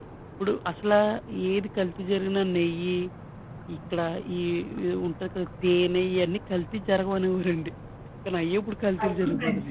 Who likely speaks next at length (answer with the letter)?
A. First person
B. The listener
B